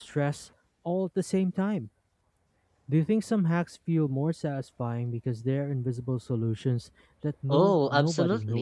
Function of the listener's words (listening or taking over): taking over